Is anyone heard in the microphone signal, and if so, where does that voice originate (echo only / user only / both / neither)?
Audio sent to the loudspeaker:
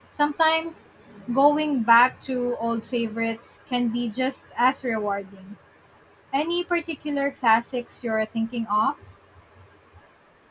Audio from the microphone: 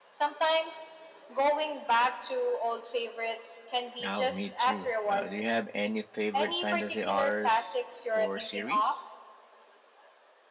both